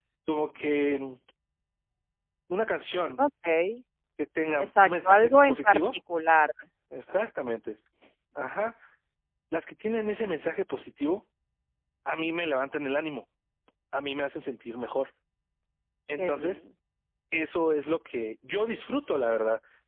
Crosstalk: present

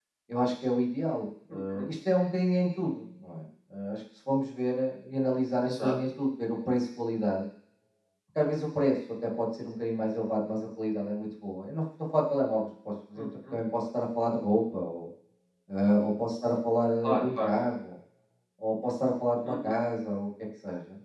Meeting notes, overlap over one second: none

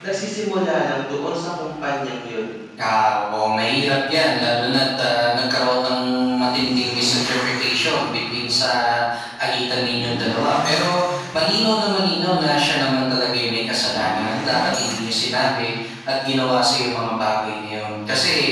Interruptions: none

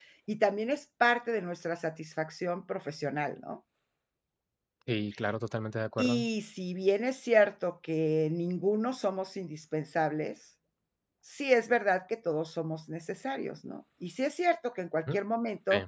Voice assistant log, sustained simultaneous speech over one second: none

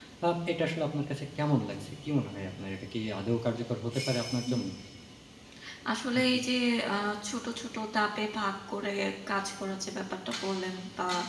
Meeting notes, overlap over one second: none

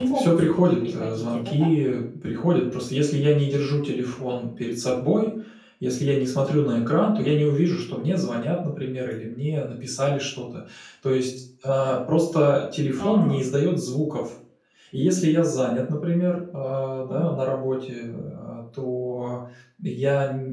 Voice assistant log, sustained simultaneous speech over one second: present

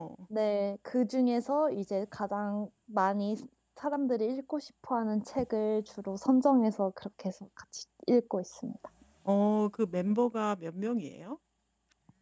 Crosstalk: none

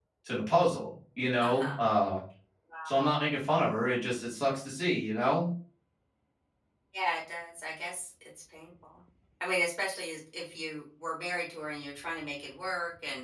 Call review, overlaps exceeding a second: none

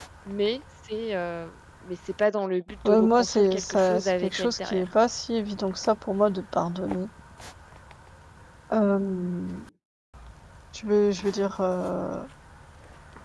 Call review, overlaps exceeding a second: present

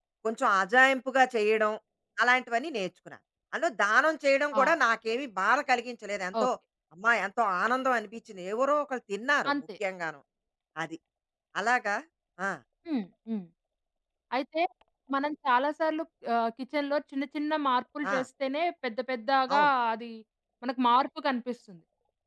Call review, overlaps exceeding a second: none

